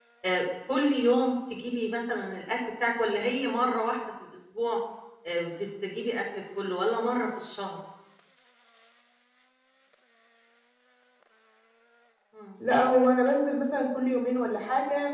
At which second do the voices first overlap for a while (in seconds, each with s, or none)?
none